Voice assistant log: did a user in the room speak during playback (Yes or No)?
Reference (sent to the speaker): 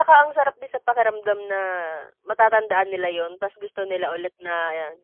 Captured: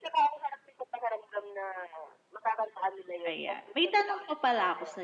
Yes